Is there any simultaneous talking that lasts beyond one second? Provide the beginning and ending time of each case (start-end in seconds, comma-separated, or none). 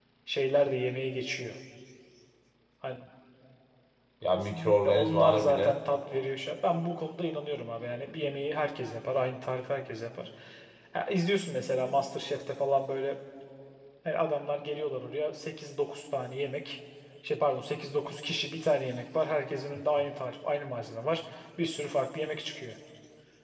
4.3-5.8